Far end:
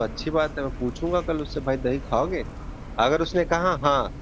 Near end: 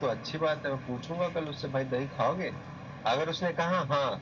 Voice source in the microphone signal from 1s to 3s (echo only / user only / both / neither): echo only